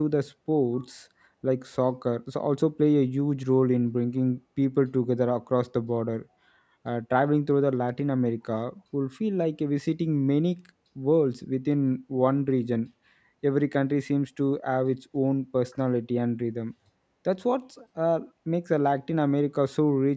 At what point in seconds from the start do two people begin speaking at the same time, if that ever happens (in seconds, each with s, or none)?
none